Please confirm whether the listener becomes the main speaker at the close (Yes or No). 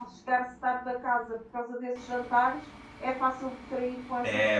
Yes